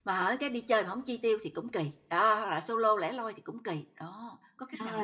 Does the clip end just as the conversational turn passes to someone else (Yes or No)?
Yes